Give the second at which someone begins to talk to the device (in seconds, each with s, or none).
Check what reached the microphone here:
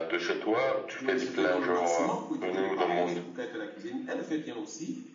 1.0 s